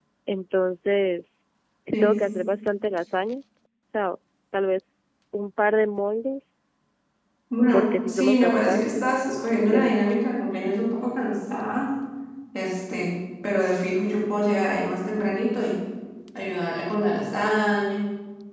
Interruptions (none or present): present